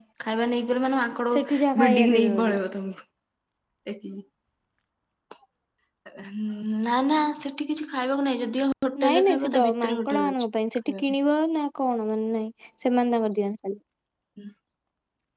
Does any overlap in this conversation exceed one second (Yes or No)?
Yes